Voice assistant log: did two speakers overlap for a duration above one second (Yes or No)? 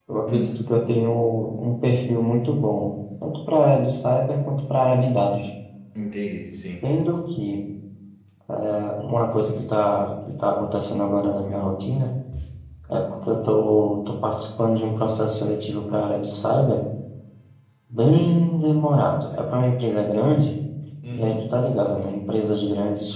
No